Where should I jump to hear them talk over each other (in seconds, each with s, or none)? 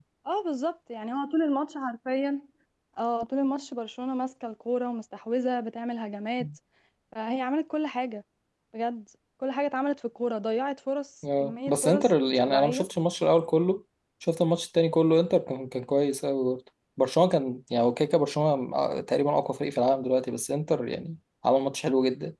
11.2 s